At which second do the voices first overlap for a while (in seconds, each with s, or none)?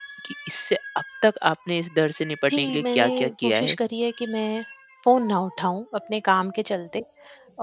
2.5 s